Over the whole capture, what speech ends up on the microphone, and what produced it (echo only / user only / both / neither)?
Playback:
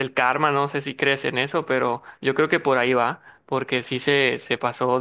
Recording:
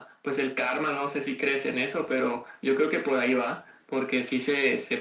echo only